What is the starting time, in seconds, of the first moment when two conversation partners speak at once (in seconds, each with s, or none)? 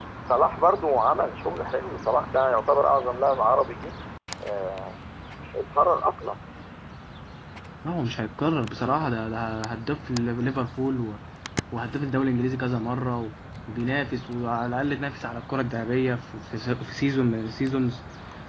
none